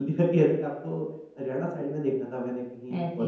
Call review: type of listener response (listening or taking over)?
listening